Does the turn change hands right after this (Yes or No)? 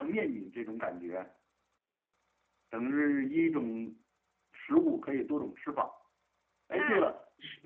No